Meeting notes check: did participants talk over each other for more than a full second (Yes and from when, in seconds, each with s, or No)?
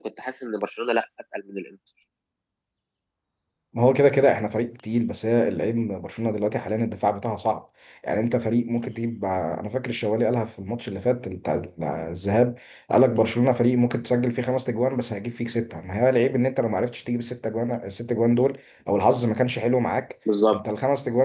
No